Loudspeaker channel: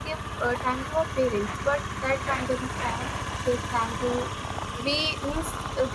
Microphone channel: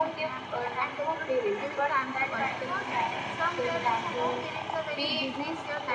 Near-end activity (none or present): present